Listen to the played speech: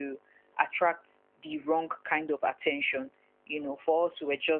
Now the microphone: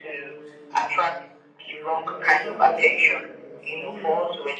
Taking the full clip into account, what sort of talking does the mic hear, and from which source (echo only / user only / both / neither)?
both